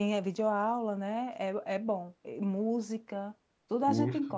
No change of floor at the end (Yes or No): Yes